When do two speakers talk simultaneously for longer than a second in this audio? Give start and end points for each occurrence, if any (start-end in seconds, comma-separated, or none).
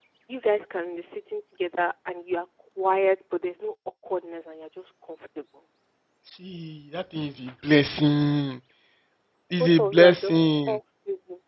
9.6-10.8